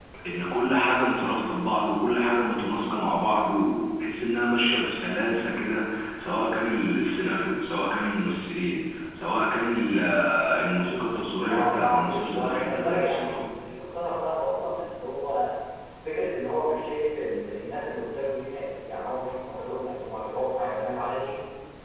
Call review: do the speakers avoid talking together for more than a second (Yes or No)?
No